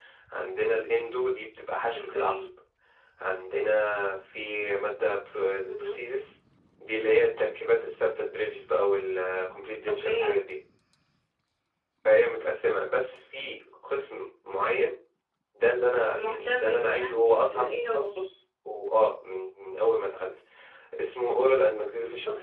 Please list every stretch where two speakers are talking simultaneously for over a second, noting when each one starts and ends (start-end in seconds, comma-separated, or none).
16.1-18.2